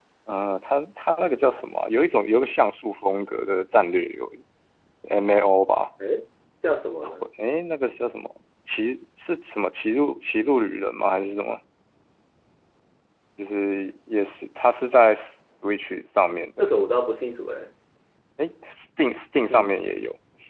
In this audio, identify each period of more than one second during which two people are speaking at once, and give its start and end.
none

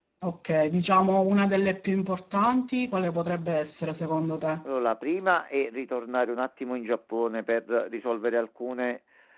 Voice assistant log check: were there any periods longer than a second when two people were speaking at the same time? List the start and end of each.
none

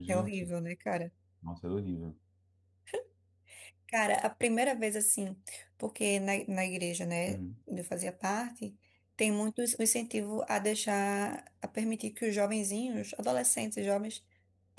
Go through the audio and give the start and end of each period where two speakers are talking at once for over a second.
none

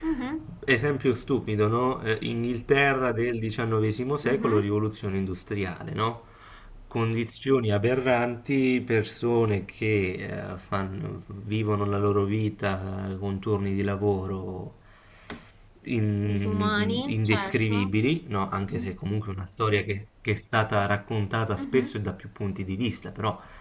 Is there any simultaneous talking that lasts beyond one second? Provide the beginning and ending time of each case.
16.3-17.8

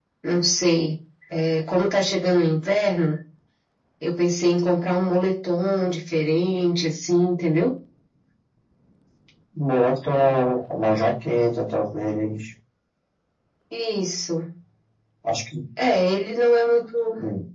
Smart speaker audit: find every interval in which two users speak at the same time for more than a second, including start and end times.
none

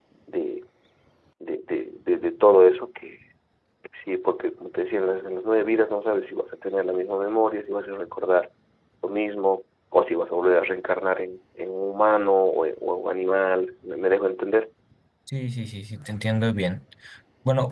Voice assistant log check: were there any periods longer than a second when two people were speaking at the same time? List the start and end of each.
none

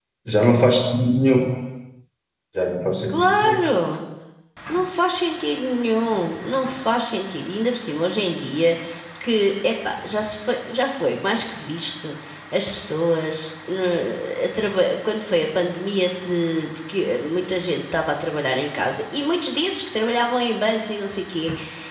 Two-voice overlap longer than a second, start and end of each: none

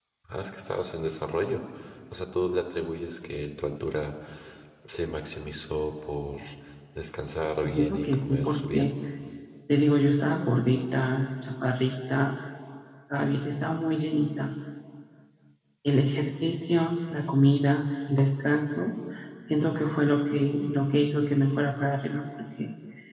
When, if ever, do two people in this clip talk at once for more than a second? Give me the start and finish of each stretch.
7.6-8.9

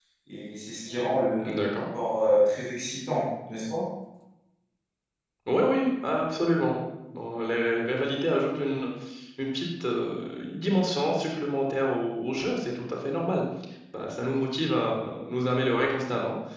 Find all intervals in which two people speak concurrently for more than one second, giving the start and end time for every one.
none

